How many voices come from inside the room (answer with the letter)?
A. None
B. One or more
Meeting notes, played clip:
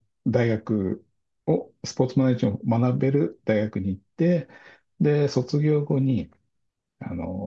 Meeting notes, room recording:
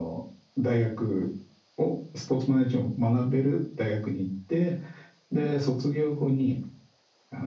A